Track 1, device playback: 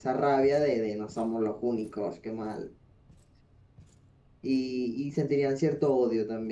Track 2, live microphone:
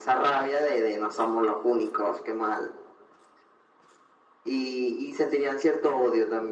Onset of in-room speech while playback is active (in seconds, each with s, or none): none